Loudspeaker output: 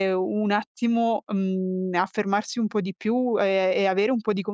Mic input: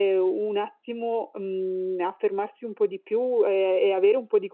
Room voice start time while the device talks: none

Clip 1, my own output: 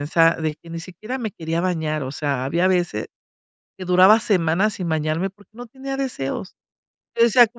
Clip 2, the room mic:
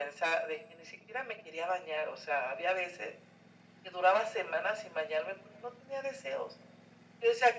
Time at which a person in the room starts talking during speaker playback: none

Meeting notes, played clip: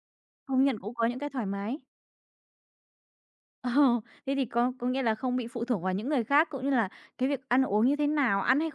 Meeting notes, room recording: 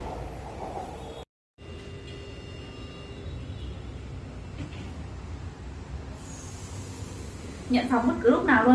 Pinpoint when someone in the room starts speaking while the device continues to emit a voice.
8 s

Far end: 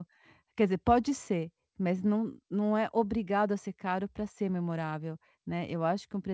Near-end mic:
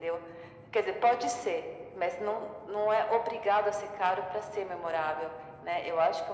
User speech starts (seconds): none

